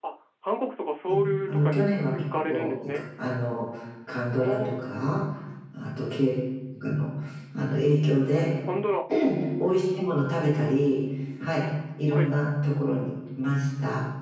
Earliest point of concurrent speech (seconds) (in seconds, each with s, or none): 1.5 s